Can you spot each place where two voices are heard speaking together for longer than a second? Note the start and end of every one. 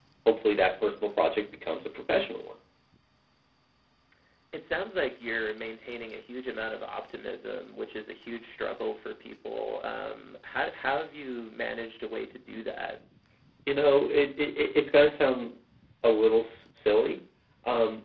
none

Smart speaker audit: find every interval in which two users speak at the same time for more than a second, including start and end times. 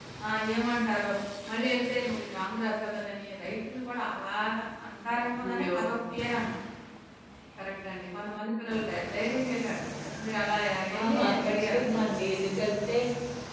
11.0-12.2

